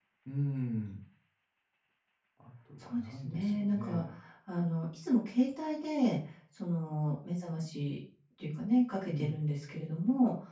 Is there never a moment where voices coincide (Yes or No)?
No